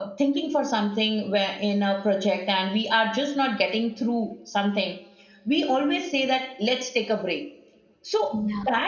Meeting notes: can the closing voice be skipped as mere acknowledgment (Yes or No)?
Yes